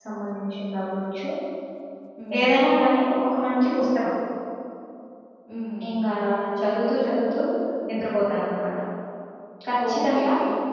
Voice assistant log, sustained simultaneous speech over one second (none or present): none